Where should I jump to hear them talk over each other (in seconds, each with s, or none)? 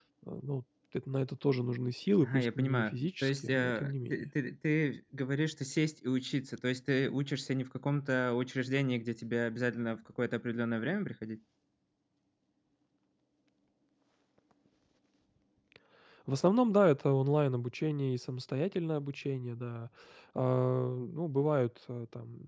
2.2 s